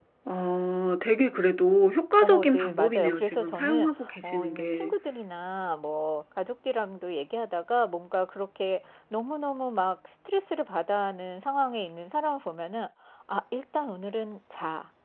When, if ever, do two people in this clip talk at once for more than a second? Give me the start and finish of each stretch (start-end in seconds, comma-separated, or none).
2.2-4.9